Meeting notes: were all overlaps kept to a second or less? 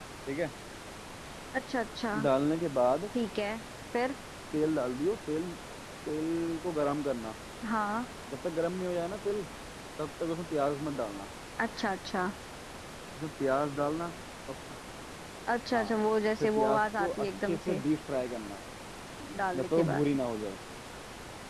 No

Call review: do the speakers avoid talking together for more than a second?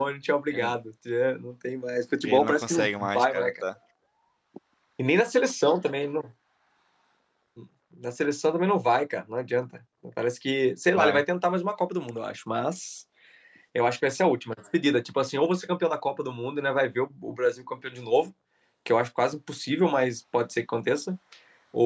No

